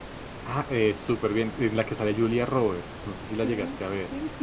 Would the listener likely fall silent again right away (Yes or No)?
No